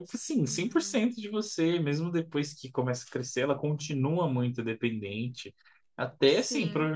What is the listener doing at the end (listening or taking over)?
listening